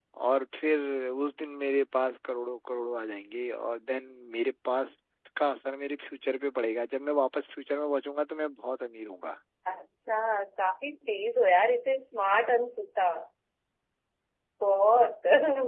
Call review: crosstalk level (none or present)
none